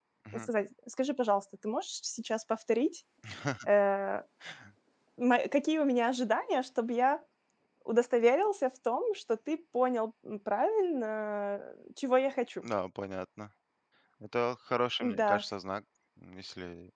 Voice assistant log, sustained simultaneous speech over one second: none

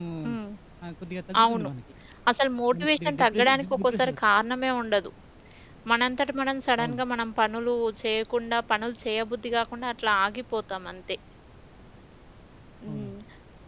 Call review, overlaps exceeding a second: present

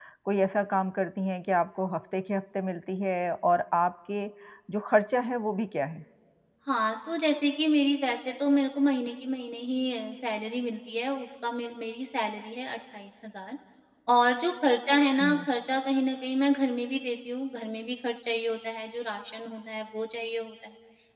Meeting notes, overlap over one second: none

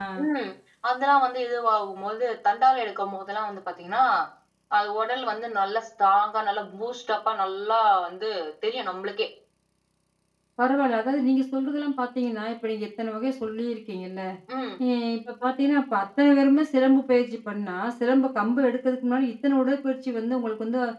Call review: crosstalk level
none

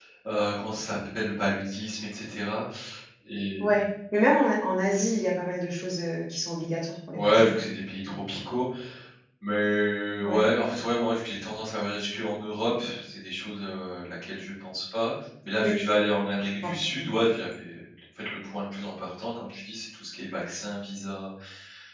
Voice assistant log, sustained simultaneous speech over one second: none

